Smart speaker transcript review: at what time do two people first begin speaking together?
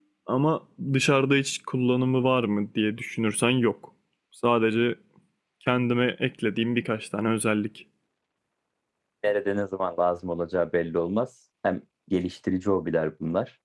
none

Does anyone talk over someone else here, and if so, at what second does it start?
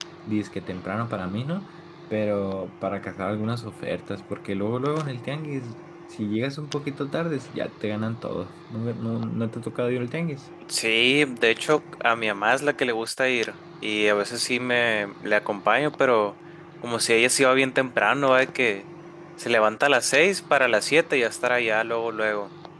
none

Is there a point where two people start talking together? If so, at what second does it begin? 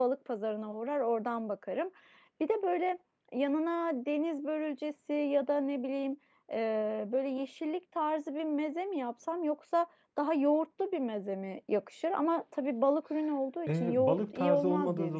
14 s

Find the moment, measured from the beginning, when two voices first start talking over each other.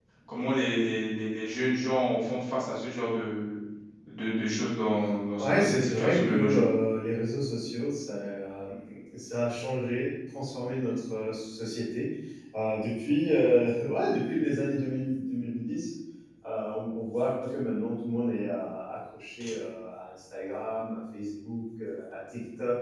5 s

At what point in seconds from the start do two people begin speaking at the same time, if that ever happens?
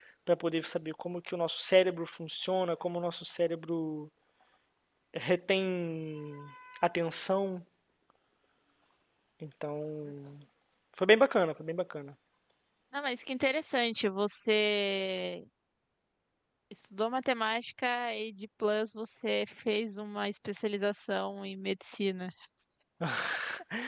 none

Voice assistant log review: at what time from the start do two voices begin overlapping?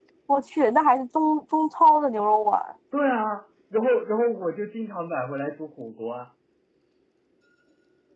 none

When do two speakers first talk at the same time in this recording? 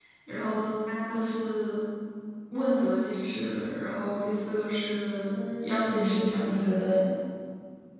5 s

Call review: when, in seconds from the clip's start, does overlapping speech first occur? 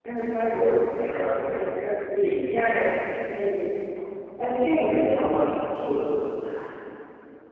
1 s

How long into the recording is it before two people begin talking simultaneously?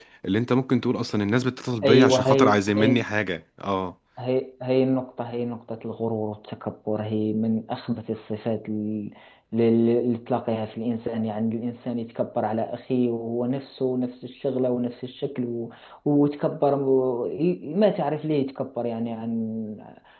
2 s

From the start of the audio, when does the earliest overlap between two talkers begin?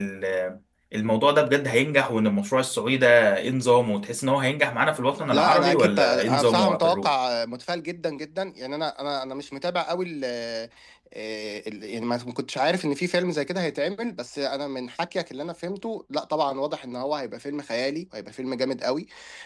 5 s

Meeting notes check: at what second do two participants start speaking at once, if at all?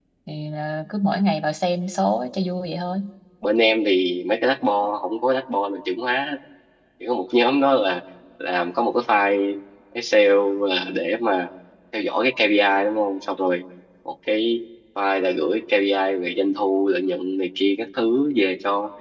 none

